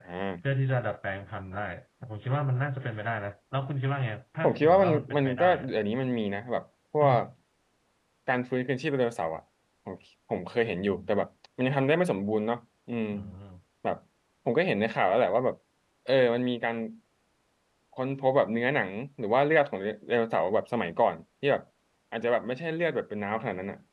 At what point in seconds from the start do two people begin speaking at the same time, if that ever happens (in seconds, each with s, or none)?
4.4 s